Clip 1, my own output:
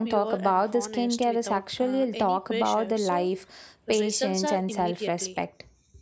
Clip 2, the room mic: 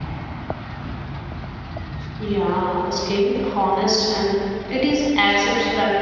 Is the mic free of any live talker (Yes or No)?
No